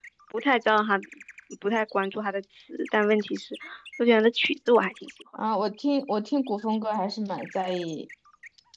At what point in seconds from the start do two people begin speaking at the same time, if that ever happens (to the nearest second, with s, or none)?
none